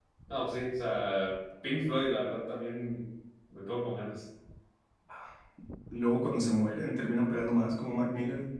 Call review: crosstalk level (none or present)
none